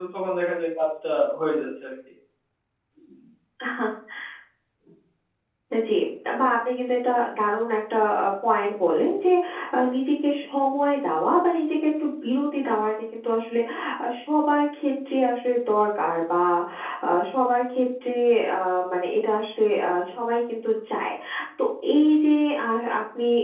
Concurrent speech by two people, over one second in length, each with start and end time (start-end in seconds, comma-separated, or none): none